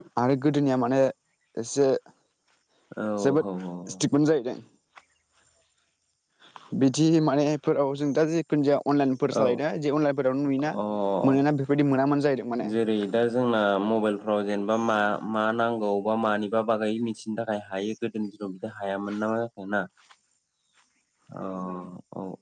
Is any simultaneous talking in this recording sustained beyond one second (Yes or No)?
No